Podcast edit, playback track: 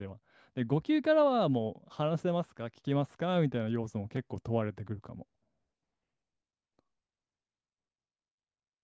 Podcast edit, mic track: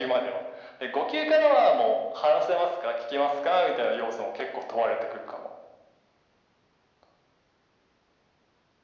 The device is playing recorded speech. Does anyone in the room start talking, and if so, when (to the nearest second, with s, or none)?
none